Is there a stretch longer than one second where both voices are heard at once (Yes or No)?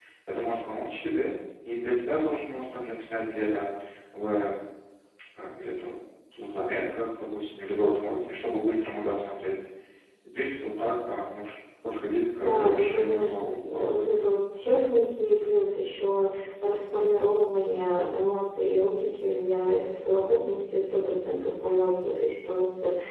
Yes